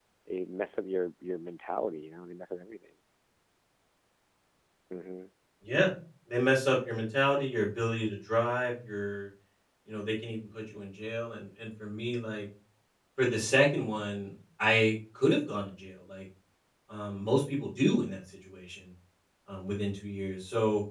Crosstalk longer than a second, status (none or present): none